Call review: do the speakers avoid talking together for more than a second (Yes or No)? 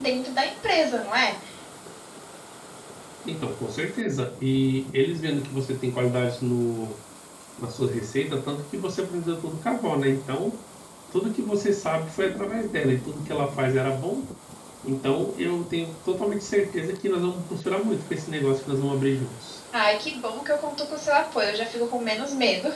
Yes